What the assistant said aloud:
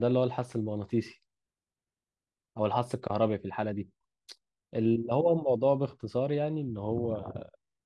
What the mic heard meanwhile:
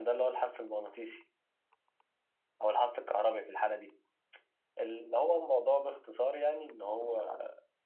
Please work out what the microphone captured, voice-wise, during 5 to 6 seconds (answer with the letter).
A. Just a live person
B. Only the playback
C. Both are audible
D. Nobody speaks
B